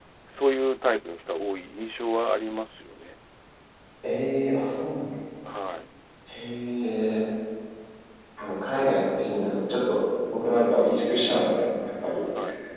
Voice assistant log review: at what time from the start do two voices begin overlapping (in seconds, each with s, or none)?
none